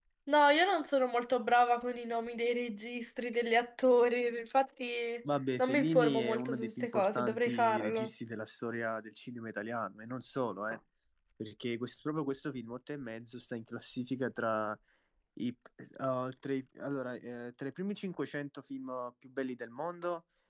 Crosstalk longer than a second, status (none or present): present